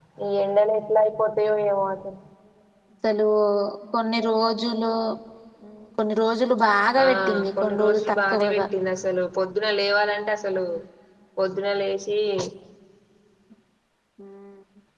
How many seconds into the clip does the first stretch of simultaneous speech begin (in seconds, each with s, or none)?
6.9 s